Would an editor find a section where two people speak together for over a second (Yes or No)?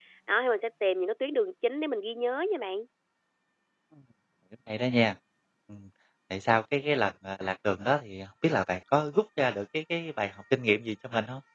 No